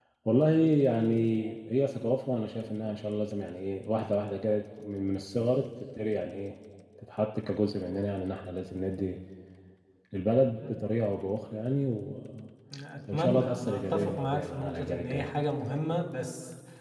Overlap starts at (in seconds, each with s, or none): 13.1 s